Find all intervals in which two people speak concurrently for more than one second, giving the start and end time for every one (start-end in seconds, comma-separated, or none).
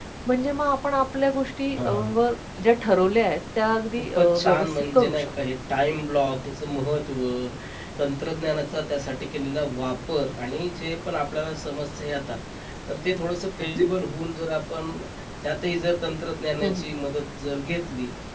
4.0-5.3